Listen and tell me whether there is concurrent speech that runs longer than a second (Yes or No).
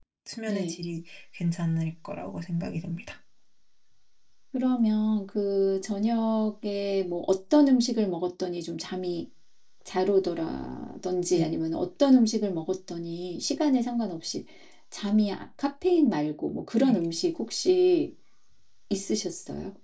No